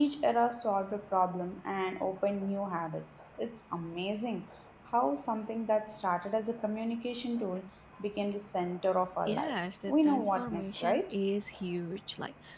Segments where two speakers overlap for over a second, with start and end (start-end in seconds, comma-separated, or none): 9.3-11.1